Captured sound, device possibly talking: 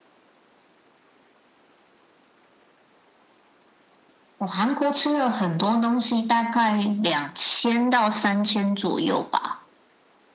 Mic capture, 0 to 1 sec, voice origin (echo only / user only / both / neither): neither